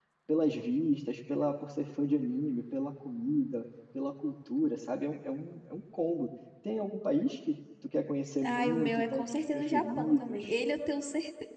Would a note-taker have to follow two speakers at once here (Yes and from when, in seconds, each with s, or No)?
Yes, from 8.4 s